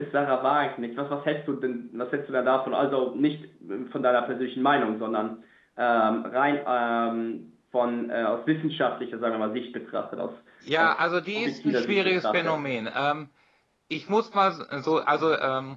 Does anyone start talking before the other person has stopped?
Yes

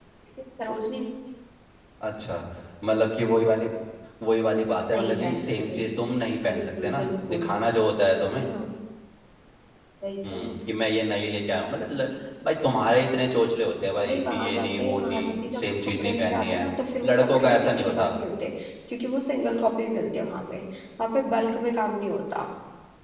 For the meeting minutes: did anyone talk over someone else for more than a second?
Yes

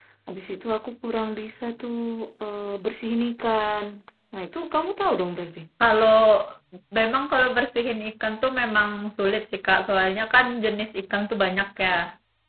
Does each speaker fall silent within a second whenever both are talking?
Yes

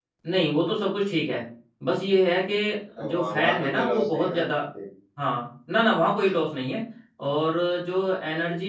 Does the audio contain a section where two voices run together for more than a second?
Yes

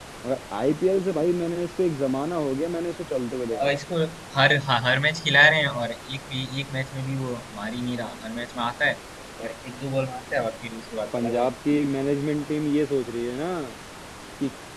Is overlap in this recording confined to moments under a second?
Yes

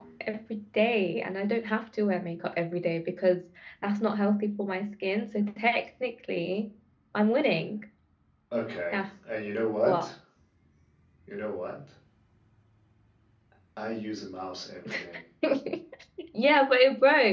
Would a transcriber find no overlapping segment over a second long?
Yes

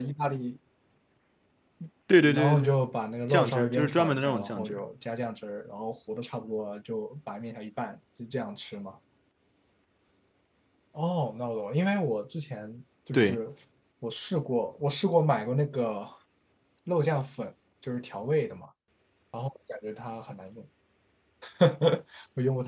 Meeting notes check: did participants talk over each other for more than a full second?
Yes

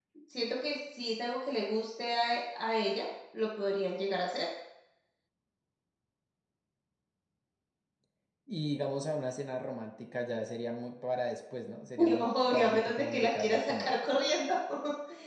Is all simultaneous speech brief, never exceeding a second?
No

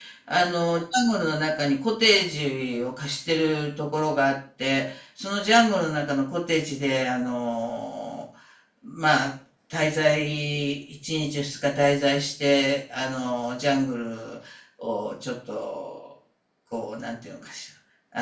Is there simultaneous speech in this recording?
No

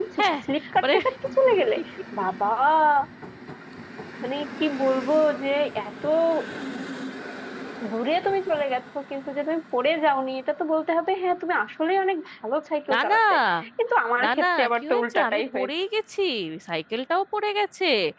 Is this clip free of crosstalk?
No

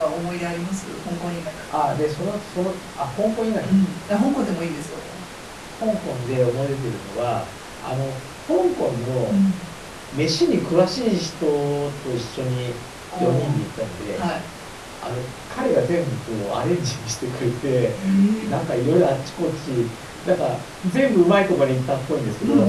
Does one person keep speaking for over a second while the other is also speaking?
No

